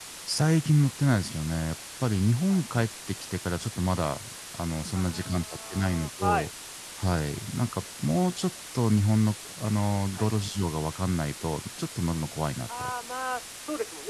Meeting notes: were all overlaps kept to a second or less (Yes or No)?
No